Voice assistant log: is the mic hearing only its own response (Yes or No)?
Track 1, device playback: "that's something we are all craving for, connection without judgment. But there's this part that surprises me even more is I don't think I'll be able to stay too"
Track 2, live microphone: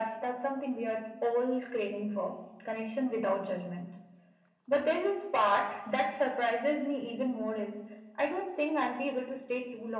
Yes